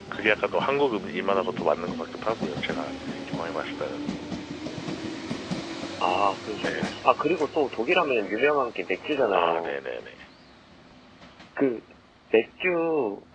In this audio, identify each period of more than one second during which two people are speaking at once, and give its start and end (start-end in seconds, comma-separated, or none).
none